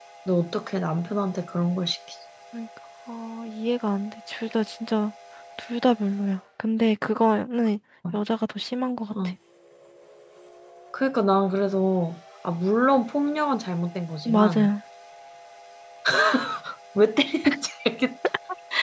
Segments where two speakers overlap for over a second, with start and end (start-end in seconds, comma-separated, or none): none